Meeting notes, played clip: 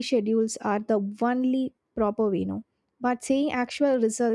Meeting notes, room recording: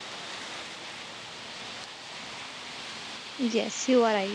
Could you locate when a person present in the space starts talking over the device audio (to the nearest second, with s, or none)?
3 s